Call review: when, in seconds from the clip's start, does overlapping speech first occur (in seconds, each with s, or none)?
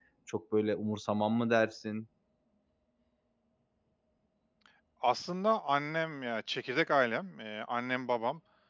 none